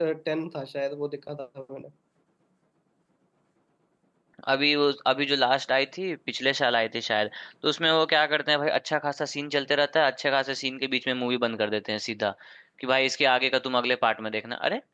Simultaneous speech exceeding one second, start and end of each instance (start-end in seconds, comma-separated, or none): none